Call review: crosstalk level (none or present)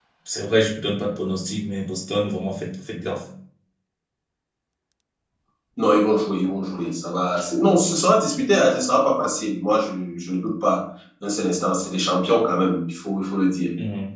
none